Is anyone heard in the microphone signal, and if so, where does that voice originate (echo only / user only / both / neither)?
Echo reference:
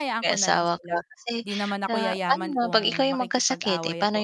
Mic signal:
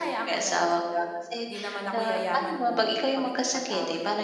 echo only